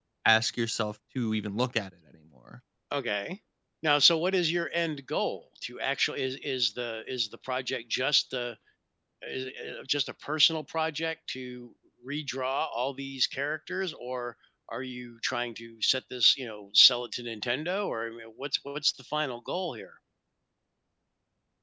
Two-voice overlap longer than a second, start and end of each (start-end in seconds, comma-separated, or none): none